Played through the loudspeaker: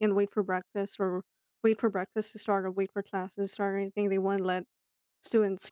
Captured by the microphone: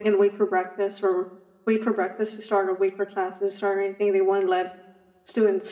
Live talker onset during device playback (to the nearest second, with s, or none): none